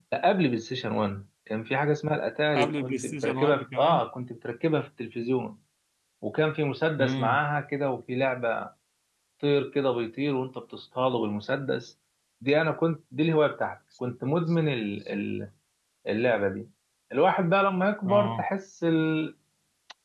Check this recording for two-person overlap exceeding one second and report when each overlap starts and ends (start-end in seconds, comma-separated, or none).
2.5-4.0